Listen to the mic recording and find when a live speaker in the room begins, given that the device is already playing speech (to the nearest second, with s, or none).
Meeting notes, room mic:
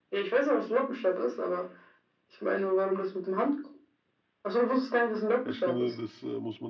5 s